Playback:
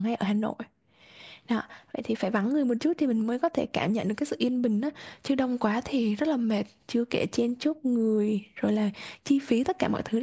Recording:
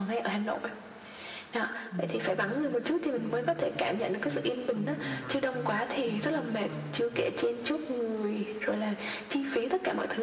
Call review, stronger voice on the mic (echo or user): echo